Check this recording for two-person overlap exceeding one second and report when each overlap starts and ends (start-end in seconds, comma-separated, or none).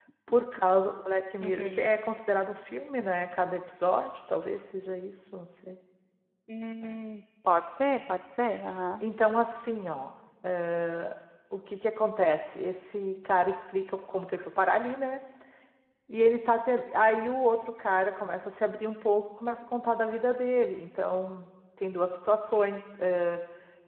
none